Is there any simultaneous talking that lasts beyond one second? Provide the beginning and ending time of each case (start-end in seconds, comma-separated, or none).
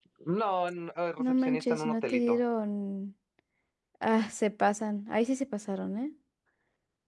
1.2-2.4